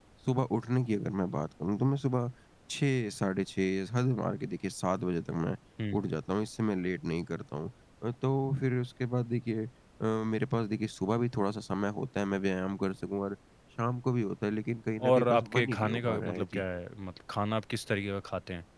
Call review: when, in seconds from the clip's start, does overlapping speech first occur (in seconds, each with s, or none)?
15.0 s